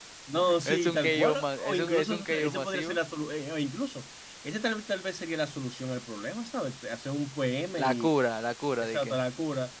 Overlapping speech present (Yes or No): Yes